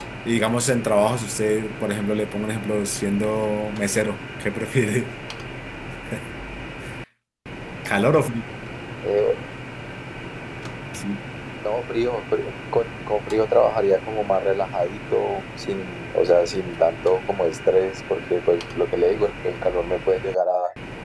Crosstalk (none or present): none